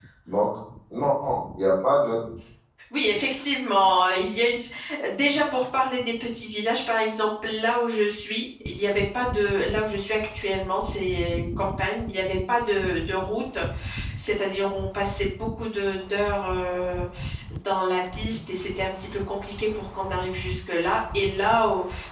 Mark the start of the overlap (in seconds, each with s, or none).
none